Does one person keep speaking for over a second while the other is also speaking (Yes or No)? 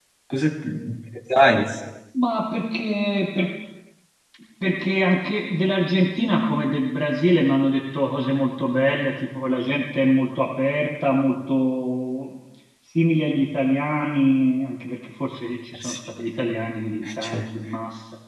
No